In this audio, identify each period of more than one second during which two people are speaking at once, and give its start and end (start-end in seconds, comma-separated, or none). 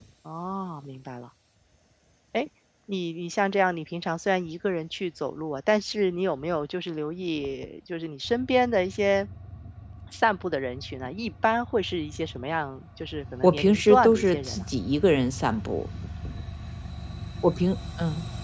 13.4-14.6